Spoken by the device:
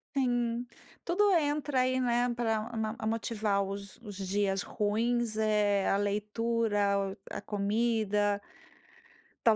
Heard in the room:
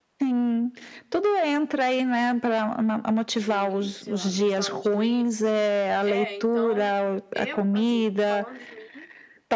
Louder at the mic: echo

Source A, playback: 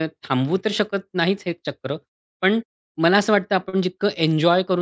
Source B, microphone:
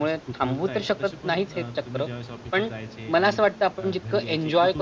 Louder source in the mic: echo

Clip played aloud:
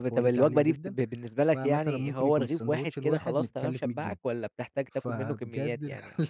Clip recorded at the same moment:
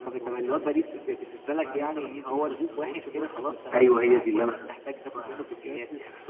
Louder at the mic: user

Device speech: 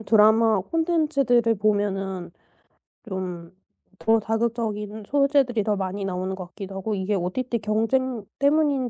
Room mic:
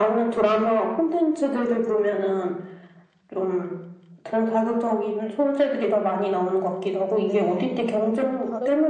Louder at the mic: echo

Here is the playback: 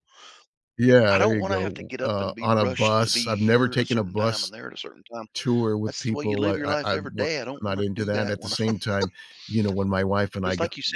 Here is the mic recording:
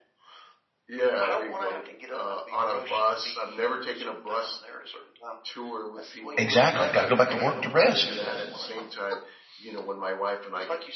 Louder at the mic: user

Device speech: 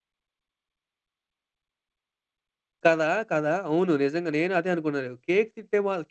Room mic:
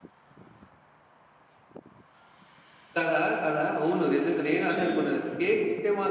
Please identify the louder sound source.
echo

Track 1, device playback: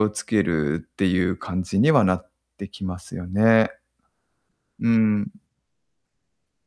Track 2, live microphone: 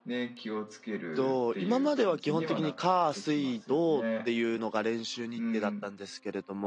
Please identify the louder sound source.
user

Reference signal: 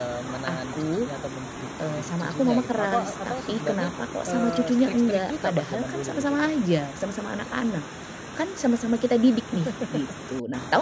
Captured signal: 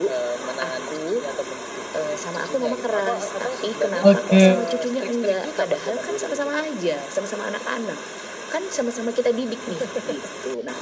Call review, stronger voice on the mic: user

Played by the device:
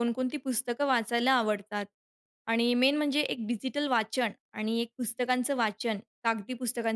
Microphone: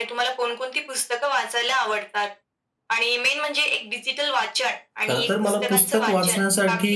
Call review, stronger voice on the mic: user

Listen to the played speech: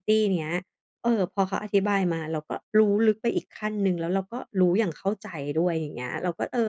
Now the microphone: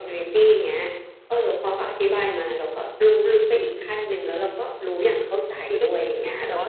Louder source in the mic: echo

